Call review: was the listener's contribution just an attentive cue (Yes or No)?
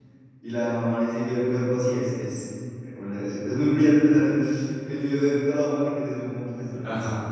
No